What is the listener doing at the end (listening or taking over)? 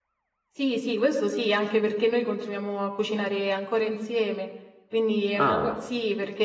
listening